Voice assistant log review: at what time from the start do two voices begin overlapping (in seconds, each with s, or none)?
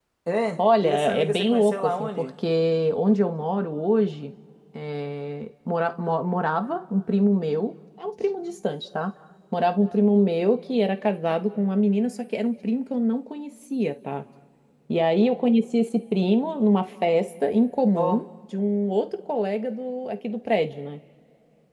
0.6 s